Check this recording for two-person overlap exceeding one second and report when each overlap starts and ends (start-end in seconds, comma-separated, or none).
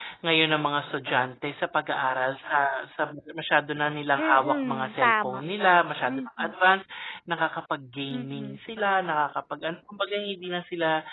4.2-5.4